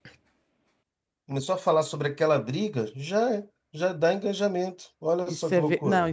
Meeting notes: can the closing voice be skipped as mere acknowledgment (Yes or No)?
No